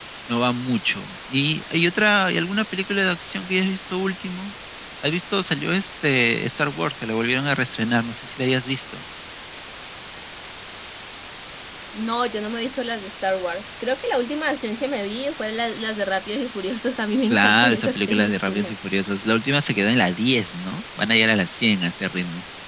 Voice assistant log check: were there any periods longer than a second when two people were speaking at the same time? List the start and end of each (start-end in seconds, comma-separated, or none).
17.3-18.7